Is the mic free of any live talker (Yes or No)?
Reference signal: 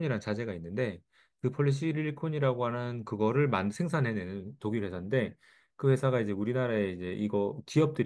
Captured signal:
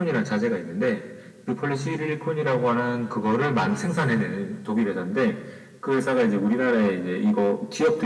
Yes